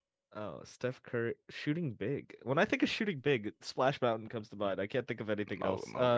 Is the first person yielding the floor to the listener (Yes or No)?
Yes